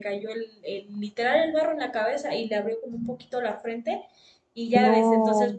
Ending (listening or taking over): listening